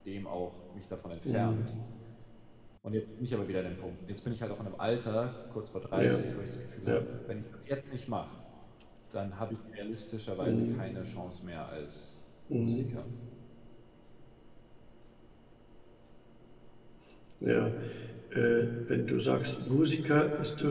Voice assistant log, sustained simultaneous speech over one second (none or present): none